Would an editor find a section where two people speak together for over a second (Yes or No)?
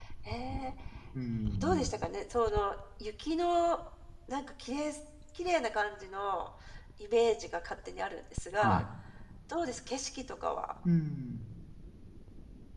No